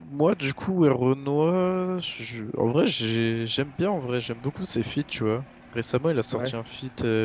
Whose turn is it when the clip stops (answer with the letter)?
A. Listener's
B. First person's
B